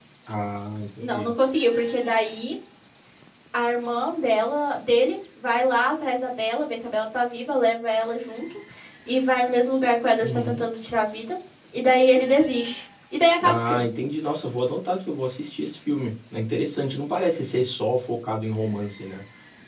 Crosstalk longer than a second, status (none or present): none